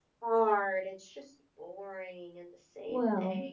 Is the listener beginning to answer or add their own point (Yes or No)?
Yes